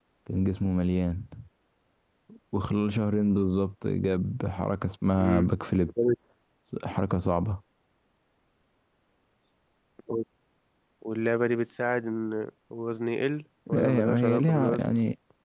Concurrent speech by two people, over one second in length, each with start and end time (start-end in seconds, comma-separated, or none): 13.7-14.9